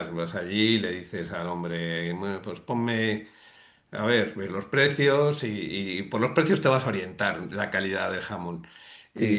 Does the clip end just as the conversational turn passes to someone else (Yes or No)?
Yes